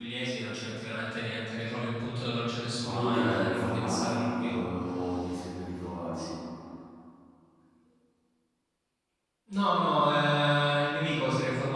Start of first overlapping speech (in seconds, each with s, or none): 2.8 s